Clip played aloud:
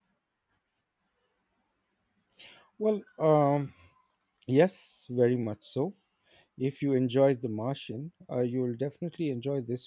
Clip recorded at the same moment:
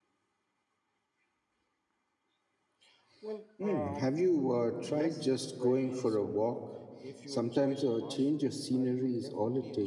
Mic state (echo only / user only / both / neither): both